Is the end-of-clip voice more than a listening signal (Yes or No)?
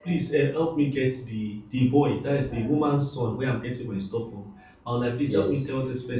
No